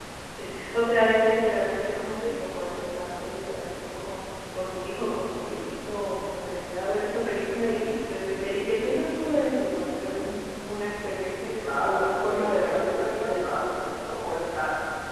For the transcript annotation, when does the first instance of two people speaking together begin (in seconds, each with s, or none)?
11.4 s